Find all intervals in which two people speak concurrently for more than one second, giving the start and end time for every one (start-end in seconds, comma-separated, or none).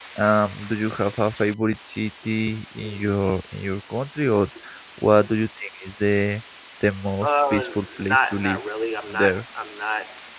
7.2-8.6